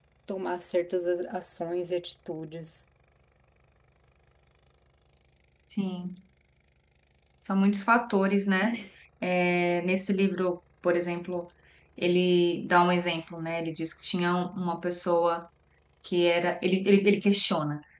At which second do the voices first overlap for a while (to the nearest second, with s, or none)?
none